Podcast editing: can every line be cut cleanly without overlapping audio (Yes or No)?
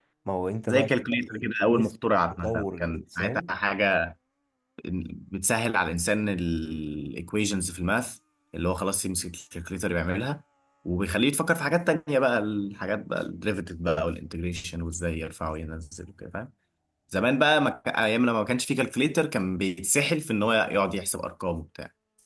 No